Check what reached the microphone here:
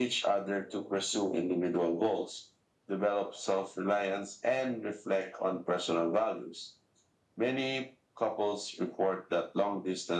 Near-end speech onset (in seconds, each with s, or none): none